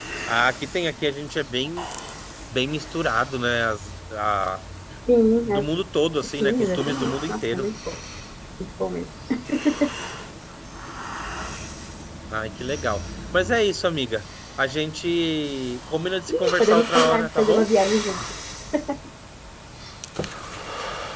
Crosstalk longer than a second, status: present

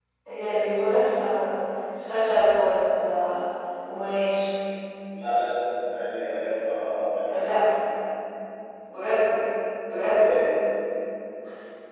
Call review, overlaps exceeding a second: none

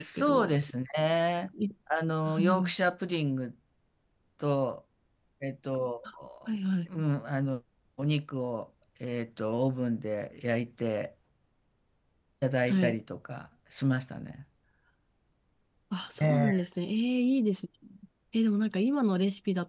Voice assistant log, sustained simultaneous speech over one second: none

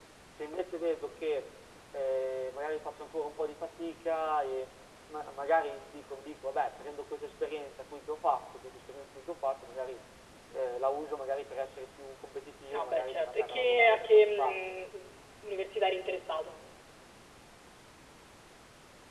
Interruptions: present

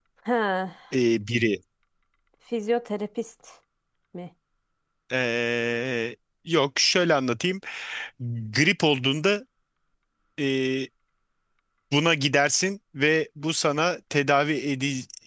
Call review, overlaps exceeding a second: none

